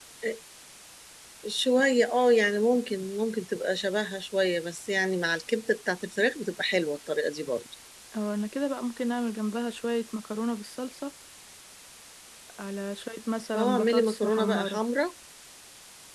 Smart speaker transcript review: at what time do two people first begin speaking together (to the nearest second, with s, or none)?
14 s